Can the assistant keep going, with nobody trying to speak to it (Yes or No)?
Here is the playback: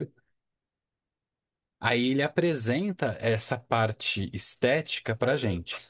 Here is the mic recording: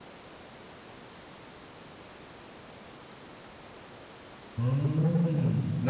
No